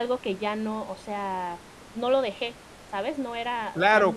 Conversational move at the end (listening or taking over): taking over